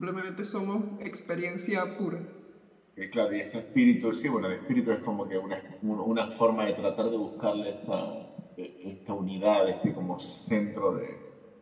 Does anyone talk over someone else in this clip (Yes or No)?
No